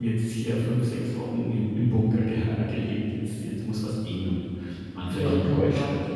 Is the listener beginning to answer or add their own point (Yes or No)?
Yes